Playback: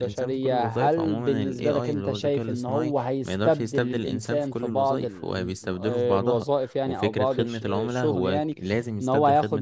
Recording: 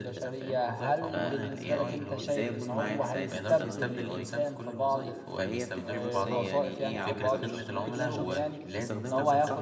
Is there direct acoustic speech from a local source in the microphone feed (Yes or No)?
Yes